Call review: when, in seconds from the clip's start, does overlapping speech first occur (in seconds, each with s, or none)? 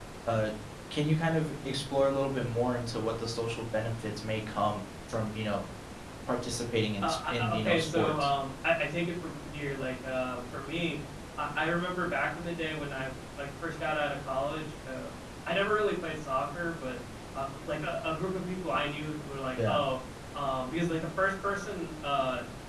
7.0 s